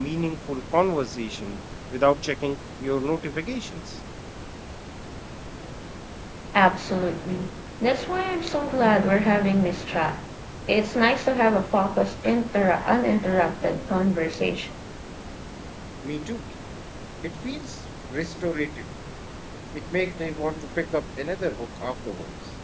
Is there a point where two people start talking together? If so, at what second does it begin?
none

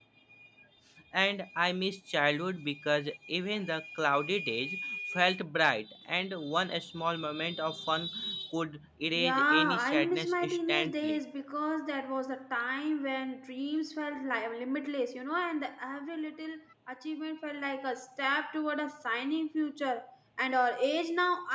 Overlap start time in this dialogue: 9.2 s

